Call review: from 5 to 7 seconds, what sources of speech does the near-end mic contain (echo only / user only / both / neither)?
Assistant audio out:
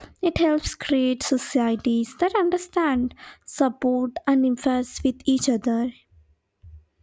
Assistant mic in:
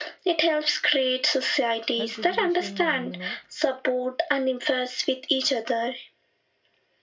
echo only